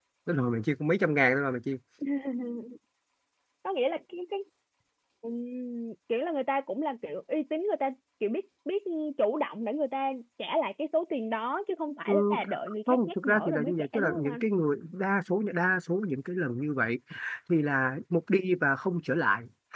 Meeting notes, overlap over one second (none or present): present